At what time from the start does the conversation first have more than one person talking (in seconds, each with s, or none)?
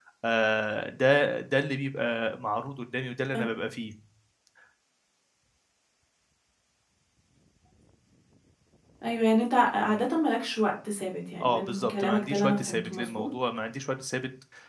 11.4 s